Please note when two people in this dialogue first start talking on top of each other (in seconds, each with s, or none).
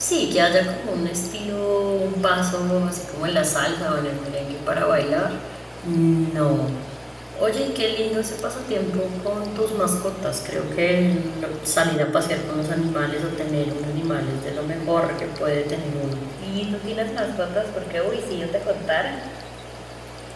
none